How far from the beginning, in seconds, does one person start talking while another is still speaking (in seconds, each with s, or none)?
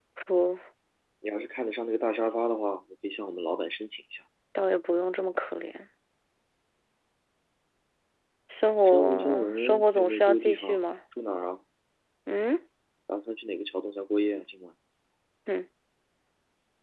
8.8 s